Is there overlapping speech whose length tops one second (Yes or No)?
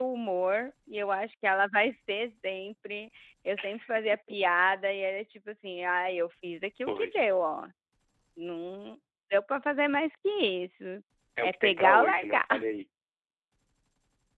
Yes